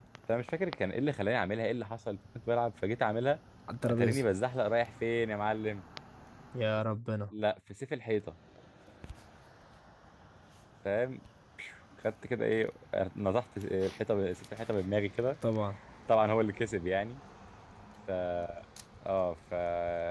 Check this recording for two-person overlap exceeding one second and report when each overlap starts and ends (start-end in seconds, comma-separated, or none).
none